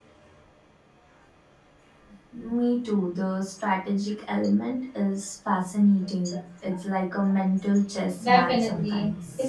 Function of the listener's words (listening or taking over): taking over